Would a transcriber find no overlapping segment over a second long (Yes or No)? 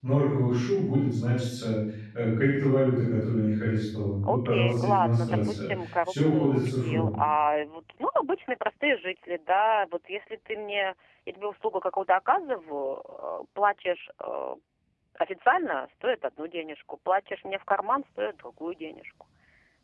No